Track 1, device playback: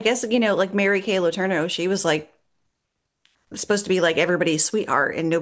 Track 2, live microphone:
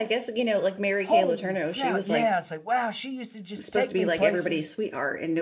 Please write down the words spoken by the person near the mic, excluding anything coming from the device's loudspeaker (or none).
holy cow. Yeah. It's like, wow, she used to just take me places